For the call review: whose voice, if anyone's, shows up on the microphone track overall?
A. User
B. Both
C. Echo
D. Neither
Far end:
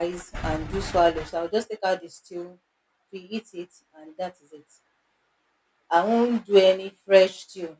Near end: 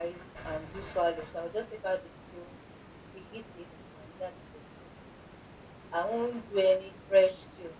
C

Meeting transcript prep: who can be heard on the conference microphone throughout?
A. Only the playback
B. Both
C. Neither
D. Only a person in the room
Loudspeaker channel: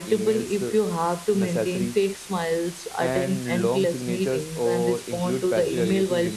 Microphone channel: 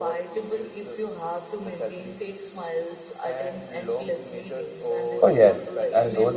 B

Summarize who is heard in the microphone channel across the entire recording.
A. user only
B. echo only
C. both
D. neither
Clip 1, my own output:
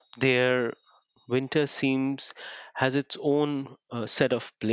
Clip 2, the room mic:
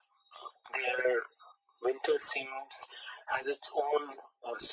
B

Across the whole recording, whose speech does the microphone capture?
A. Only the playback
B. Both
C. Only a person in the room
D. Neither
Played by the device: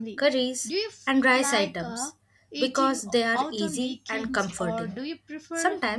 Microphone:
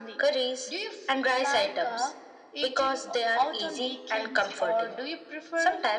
A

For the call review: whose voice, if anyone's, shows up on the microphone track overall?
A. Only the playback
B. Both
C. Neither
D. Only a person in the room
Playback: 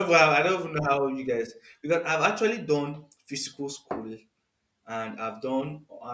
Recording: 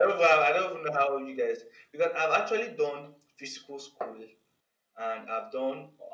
A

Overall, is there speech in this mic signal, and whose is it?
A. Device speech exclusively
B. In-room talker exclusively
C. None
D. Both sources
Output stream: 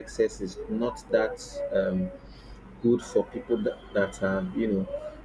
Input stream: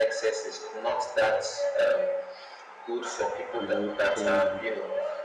D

